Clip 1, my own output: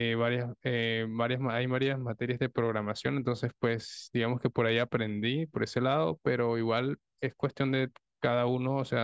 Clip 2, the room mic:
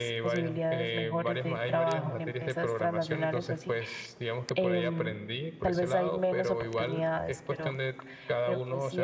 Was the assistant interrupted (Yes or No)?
Yes